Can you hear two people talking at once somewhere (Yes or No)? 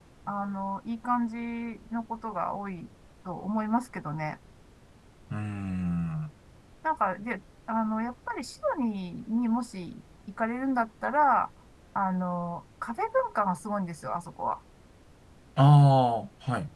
No